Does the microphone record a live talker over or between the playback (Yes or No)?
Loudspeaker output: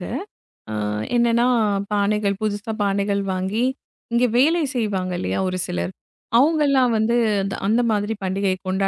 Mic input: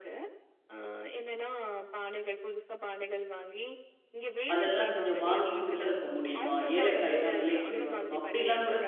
Yes